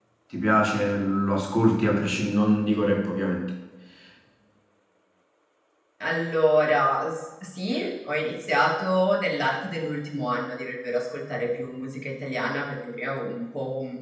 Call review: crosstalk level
none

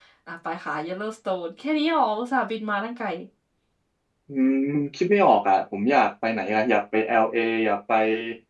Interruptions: none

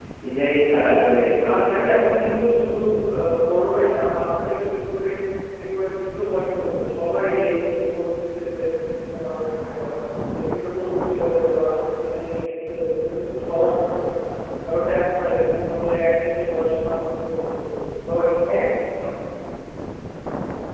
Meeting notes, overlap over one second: present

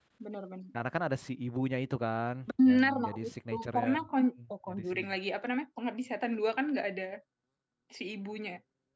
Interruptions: present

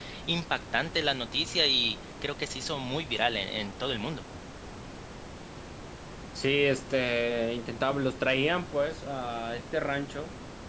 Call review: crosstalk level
none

